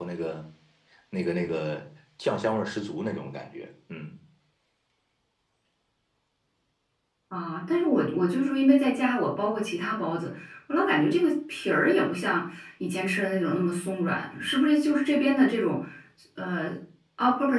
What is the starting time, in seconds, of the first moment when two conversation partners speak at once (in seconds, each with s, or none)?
none